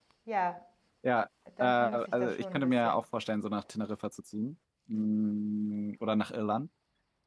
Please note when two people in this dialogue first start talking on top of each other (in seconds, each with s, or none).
1.6 s